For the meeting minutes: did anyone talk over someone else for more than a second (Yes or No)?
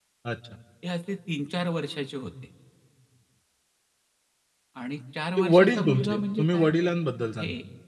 Yes